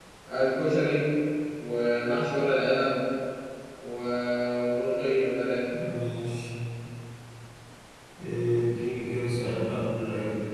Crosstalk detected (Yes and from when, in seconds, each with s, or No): No